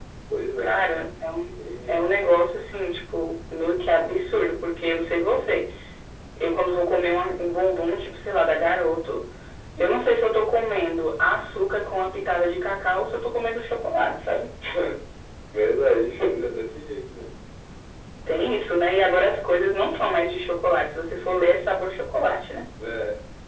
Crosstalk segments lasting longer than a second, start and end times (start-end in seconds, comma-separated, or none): none